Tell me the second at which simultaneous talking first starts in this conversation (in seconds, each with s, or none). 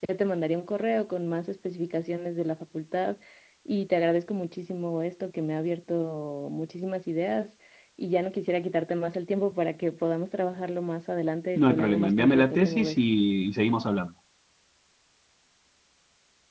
11.6 s